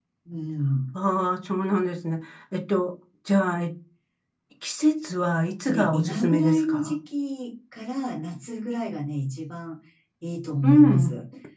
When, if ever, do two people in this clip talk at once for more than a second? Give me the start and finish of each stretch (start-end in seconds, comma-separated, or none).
5.7-7.0